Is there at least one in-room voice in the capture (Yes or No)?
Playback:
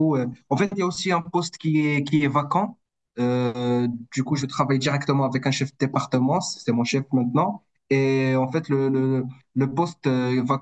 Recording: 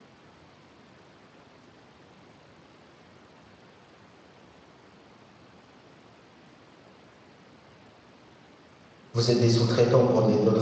Yes